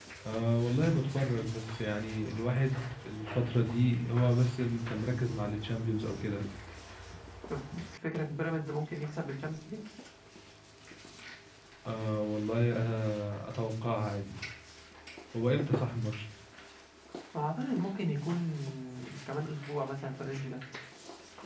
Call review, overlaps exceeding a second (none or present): none